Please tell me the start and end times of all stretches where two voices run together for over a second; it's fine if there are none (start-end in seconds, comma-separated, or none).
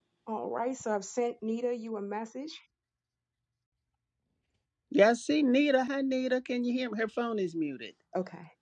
none